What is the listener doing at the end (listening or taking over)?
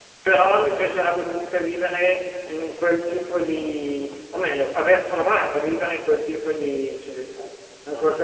taking over